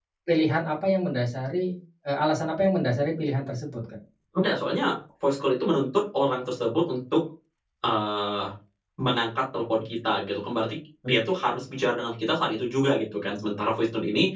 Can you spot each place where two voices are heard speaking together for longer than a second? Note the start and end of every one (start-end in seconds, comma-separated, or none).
none